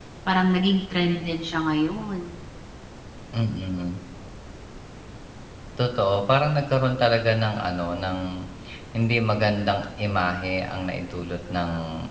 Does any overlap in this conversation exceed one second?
No

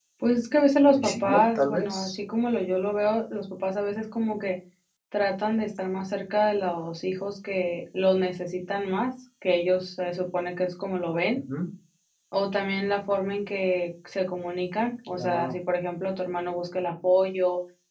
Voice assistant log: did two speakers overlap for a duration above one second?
Yes, from 0.9 s

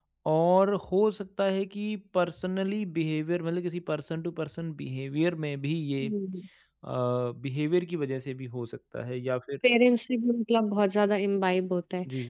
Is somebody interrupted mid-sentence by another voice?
No

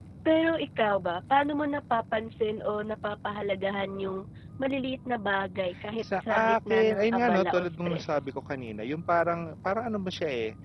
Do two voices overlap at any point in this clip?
Yes, from 6.0 s

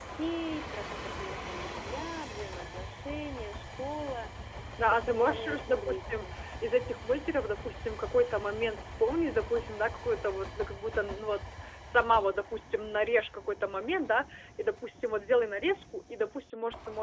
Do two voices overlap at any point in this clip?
Yes, from 4.8 s

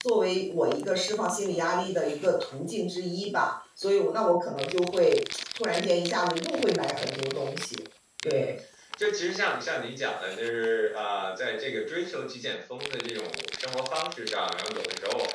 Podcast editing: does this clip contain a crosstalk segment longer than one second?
No

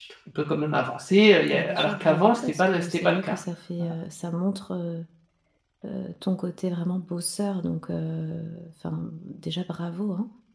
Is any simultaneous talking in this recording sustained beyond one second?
Yes, from 1.5 s

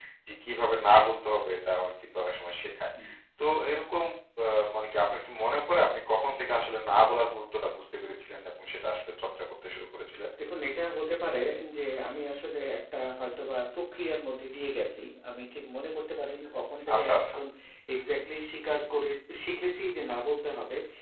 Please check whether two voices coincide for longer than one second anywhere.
No

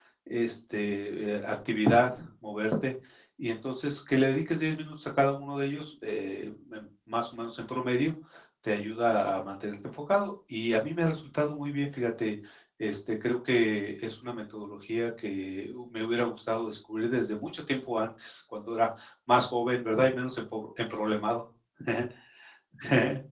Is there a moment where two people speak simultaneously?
No

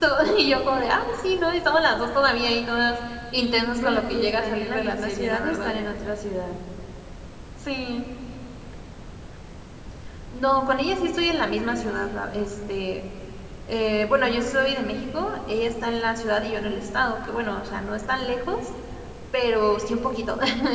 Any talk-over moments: Yes, from 3.4 s

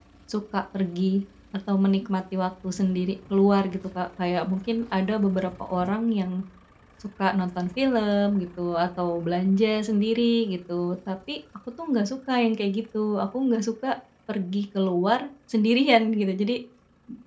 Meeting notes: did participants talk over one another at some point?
No

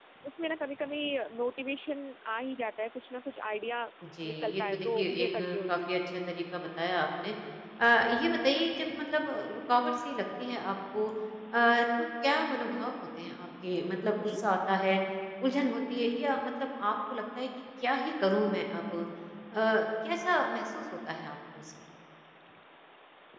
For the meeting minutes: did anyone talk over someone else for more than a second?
Yes, from 4.3 s

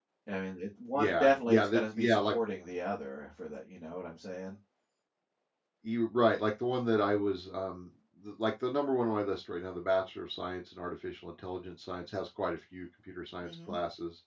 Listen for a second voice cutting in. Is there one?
Yes, from 0.9 s

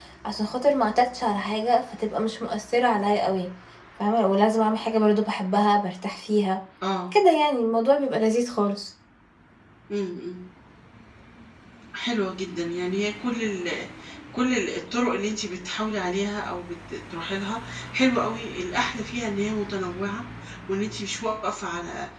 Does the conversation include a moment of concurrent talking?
No

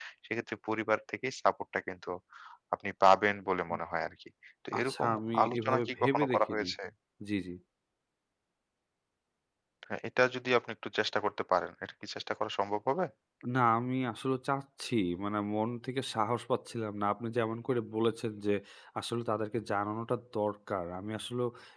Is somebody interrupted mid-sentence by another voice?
Yes, from 4.8 s

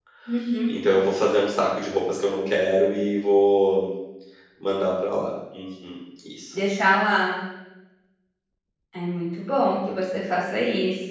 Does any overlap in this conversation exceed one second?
No

